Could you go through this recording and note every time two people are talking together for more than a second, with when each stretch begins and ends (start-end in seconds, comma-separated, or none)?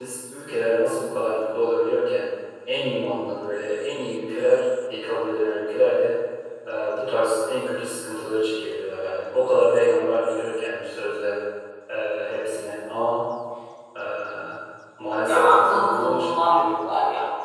15.1-16.8